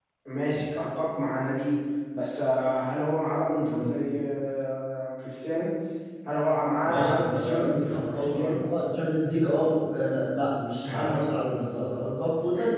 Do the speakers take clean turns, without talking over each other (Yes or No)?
No